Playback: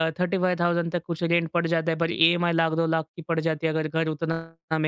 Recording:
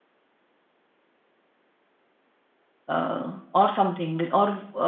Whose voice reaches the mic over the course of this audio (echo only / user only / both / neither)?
user only